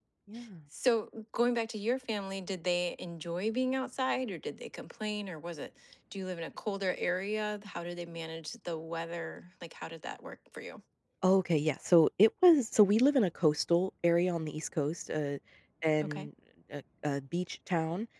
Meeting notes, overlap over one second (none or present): none